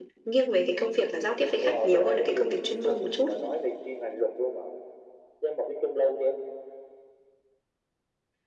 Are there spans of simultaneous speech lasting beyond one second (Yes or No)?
Yes